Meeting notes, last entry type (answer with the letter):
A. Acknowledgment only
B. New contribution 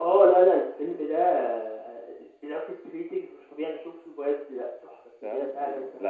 B